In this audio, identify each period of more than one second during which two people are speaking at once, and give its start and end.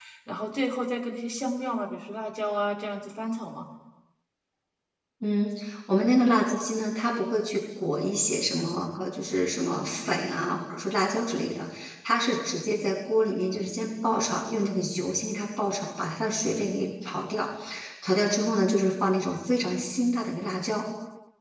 none

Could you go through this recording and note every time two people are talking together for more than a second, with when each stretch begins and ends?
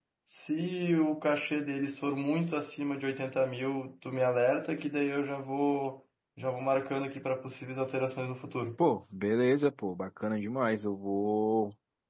none

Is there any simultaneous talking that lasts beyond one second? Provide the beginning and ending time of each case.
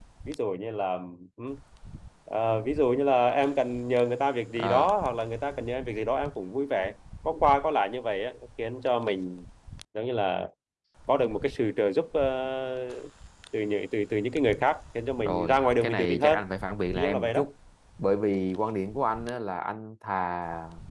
15.2-16.4

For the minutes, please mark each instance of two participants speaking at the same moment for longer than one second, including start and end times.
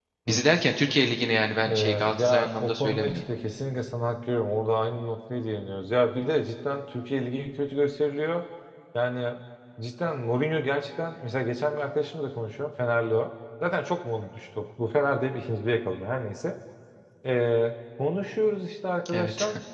1.6-3.2

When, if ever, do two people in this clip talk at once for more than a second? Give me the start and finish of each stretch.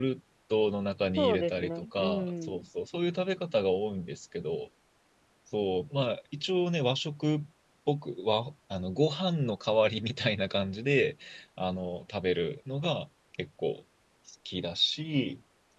1.2-2.6

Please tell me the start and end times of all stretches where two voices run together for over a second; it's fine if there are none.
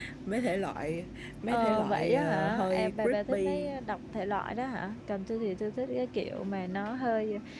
1.5-3.7

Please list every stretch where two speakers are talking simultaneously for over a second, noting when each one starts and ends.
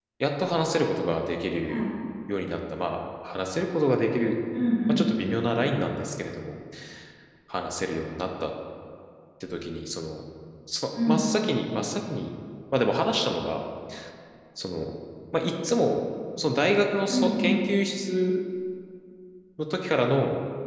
none

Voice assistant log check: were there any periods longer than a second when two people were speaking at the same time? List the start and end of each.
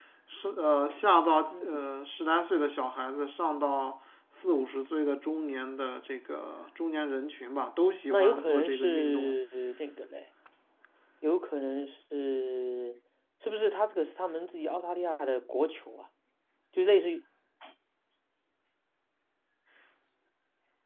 8.1-9.3

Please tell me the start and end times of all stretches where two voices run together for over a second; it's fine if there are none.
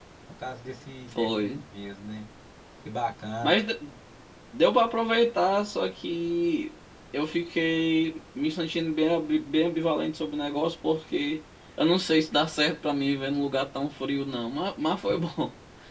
none

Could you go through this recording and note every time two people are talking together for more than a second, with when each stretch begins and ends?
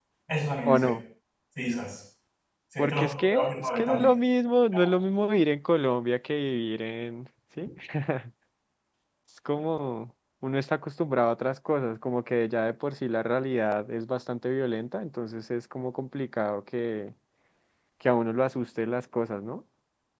2.8-4.1

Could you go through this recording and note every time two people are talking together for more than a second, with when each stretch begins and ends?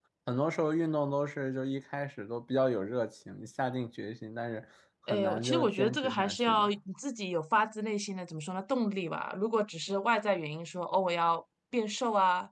5.1-6.7

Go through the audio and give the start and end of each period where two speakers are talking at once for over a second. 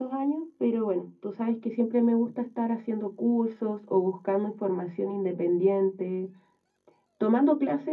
none

